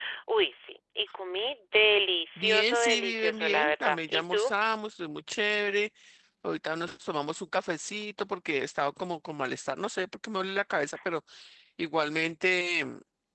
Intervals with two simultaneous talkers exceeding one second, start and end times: 2.4-4.5

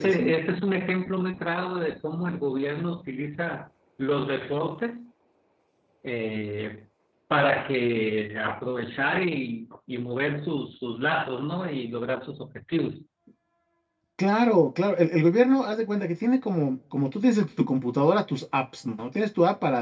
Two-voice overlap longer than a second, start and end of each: none

